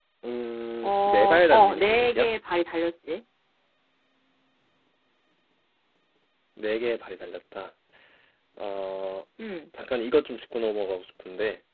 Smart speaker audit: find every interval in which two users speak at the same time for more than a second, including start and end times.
0.8-2.3

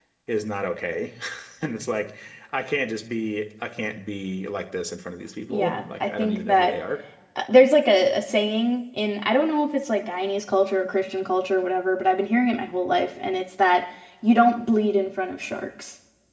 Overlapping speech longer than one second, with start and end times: 5.5-6.8

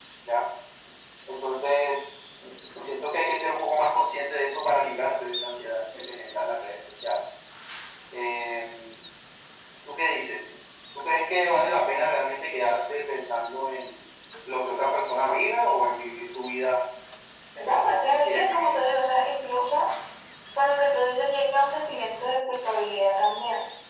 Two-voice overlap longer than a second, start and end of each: 17.6-18.9

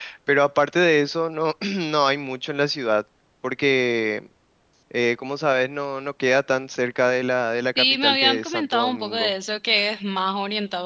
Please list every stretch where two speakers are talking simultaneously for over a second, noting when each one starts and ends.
7.8-9.3

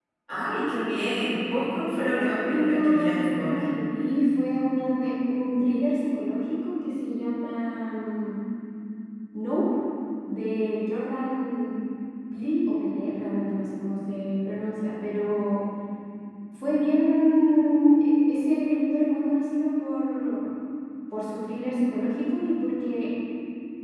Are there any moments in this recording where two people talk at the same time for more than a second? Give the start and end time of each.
2.1-3.6

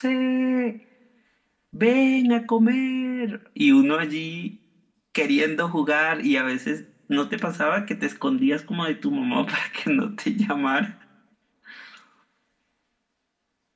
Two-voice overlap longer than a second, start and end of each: none

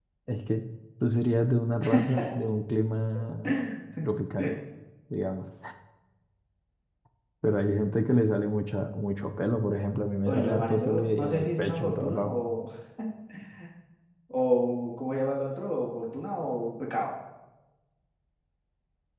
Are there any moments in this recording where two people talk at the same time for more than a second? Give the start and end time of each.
10.3-12.3

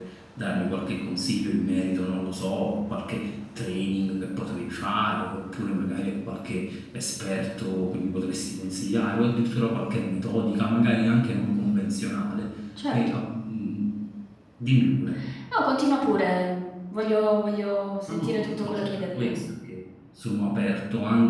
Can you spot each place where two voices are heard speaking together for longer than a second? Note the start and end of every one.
18.1-19.3

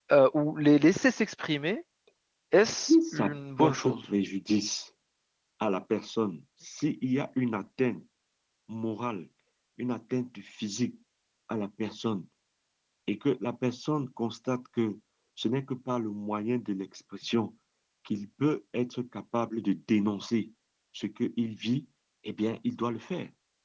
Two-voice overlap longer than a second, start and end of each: 2.7-4.0

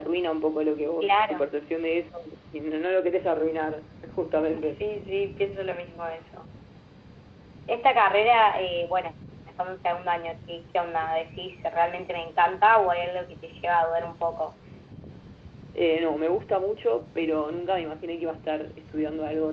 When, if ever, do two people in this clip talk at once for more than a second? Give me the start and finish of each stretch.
none

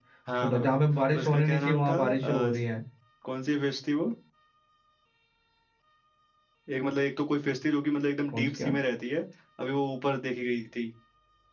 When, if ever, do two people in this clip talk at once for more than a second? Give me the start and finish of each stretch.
1.2-2.6

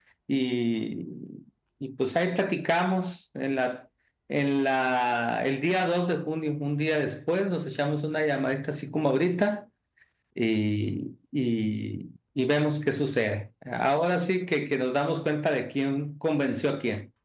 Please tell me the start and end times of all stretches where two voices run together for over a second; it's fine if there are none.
none

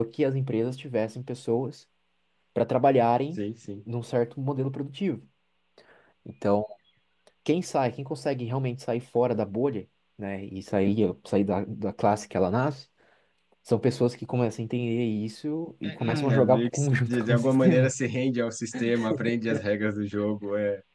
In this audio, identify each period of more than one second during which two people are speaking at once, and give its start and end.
15.8-17.9

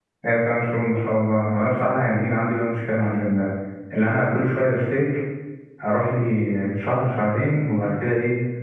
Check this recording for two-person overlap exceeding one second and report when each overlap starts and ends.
none

